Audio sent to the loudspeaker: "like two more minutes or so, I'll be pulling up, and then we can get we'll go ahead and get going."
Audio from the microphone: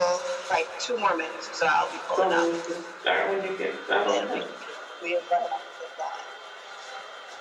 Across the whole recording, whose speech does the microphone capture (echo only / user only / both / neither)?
both